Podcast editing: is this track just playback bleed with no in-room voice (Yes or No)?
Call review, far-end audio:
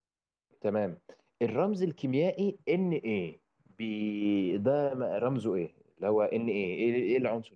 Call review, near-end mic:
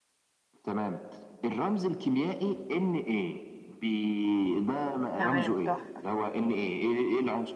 No